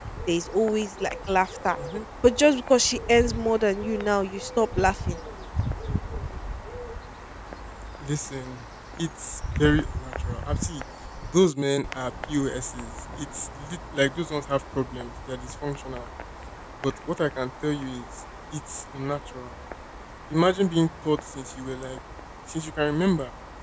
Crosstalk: none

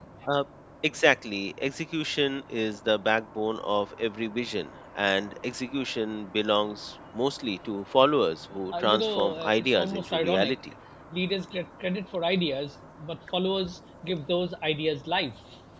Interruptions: present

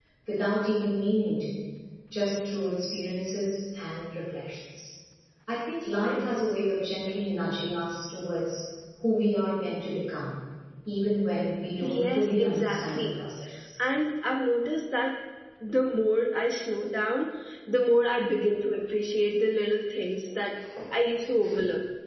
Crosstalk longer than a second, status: present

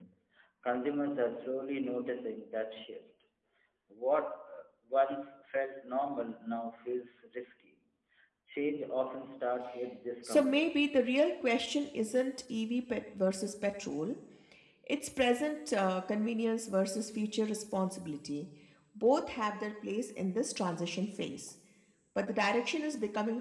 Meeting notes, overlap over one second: none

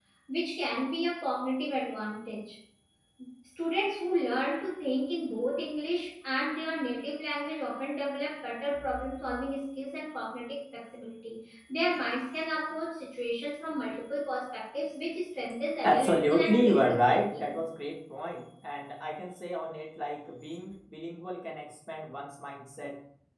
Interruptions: present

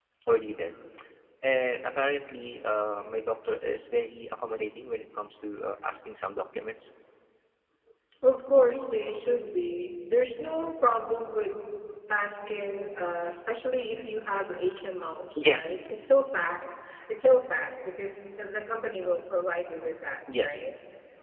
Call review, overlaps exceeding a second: none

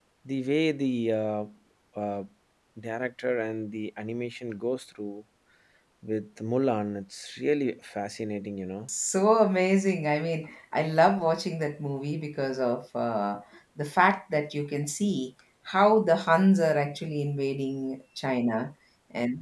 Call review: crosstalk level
none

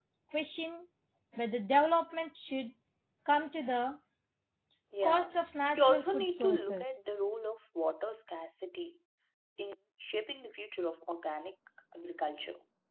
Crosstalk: present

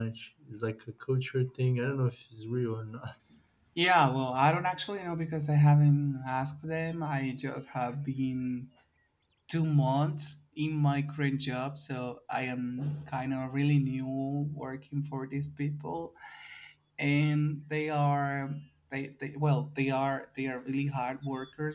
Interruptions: none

